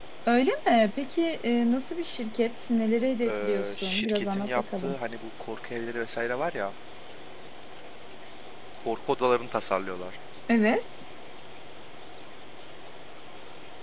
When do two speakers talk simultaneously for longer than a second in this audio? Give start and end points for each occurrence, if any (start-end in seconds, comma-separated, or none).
3.3-4.9